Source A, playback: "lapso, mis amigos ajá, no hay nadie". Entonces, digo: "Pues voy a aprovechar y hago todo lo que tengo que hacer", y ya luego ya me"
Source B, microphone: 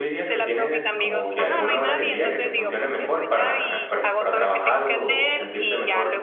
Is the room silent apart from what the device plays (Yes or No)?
No